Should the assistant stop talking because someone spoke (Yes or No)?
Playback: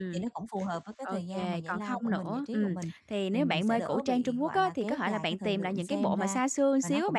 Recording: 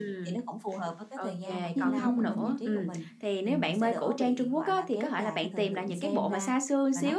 Yes